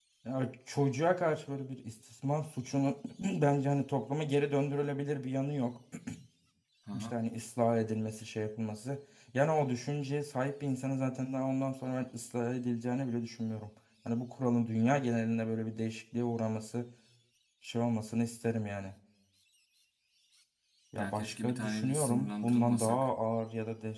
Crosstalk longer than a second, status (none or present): present